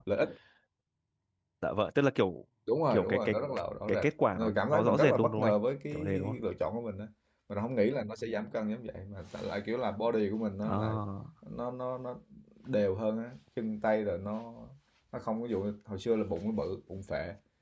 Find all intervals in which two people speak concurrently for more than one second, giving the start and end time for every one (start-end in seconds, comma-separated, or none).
3.9-5.5